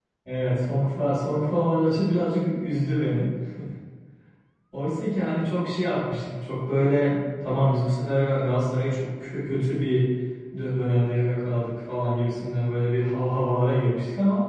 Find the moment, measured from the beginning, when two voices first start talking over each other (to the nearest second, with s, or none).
none